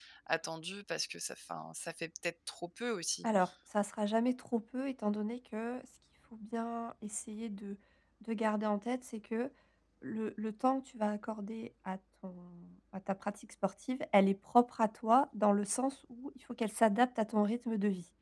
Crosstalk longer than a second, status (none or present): none